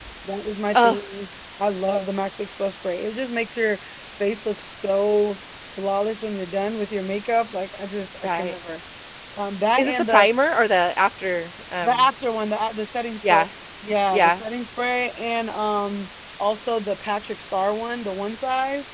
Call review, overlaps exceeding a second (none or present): none